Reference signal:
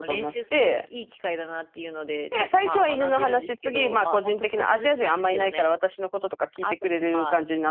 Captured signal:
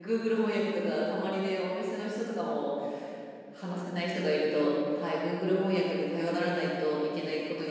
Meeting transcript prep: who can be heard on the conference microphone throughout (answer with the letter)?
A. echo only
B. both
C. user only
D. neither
C